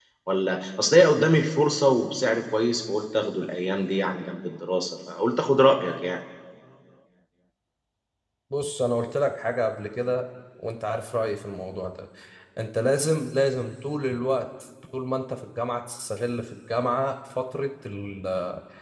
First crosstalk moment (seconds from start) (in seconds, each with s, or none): none